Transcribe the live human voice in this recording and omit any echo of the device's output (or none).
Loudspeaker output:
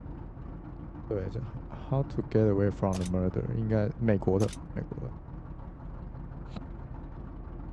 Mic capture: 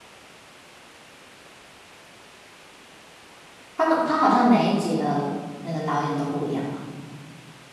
他们他好像每一集的那个导演都不一样嘛，